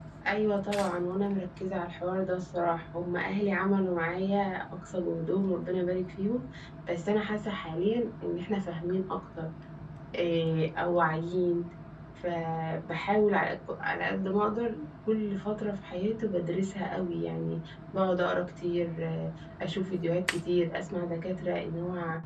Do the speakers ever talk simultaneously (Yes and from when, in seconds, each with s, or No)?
No